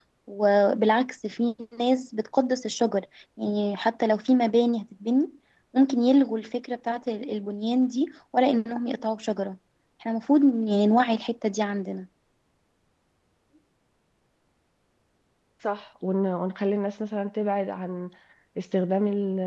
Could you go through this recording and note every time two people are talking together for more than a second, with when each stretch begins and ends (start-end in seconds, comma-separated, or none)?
none